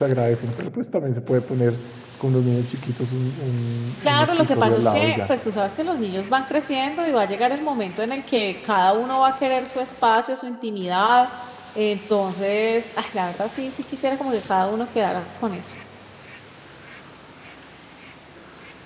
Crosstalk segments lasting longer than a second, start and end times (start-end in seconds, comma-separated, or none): 4.0-5.3